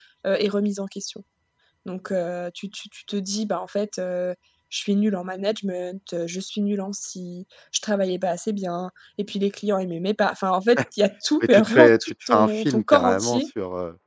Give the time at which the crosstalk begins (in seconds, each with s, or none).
11.4 s